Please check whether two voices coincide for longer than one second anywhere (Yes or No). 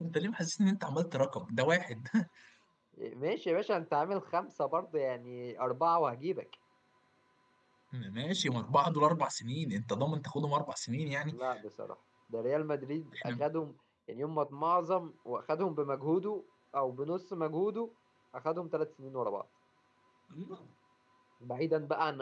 No